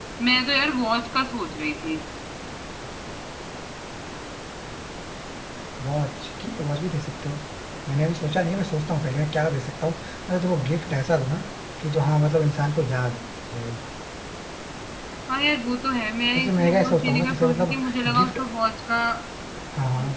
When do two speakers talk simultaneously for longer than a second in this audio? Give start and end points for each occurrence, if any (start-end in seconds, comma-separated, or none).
16.4-17.7